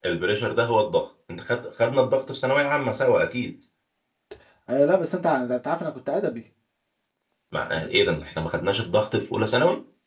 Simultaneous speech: No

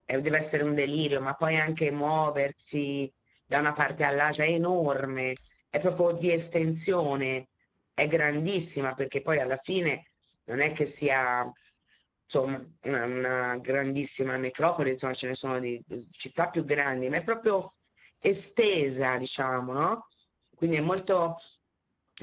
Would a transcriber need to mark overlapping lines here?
No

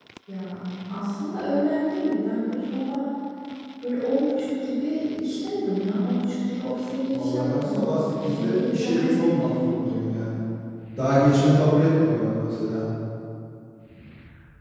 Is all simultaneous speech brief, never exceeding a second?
No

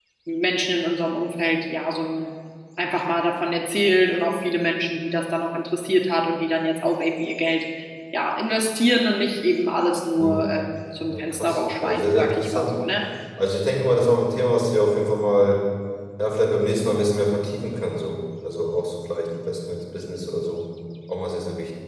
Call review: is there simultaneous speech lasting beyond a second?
Yes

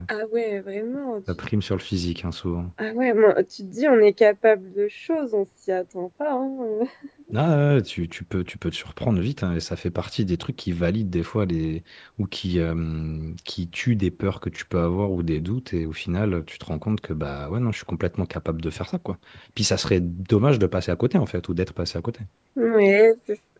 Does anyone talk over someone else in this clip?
No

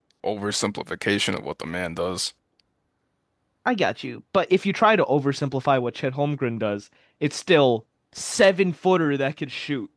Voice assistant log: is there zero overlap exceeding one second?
Yes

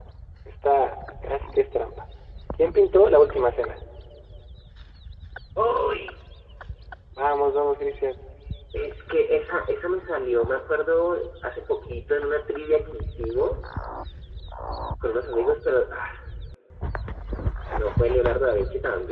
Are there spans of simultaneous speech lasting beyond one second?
No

